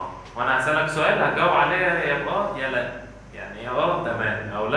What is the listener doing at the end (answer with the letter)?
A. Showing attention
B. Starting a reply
A